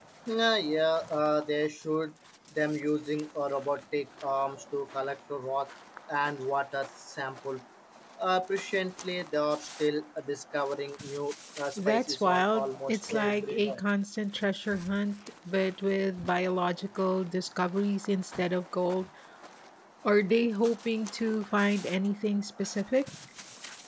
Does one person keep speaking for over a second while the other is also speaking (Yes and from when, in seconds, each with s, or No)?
Yes, from 11.8 s